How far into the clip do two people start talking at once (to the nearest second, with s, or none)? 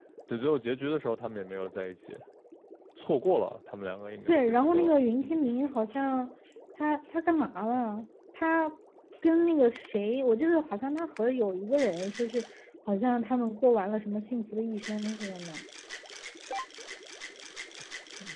4 s